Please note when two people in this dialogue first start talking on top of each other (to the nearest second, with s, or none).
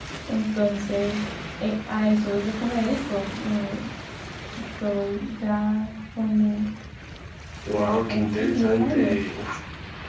8 s